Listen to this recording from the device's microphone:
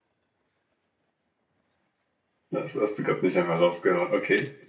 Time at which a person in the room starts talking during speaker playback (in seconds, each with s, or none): 2.5 s